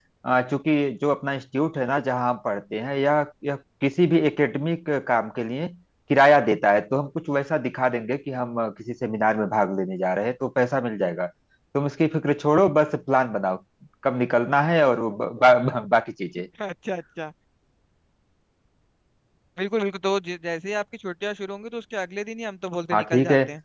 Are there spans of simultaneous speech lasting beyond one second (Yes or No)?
No